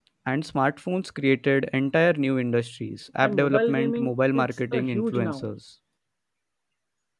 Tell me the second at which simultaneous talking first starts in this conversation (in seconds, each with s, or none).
3.2 s